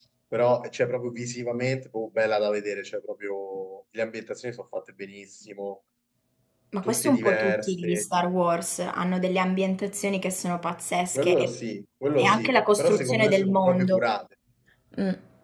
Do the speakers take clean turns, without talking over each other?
No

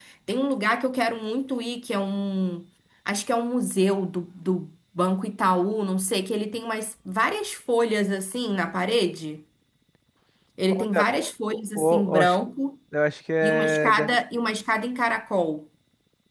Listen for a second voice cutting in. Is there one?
Yes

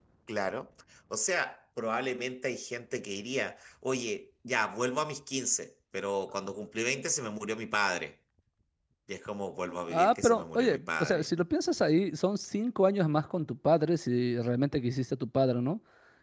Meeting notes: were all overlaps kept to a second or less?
No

